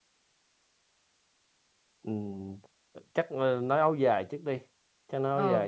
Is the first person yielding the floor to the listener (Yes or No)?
Yes